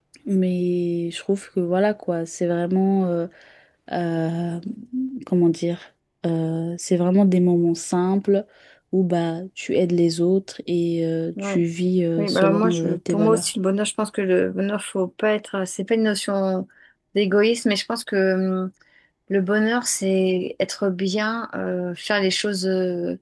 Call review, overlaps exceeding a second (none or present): present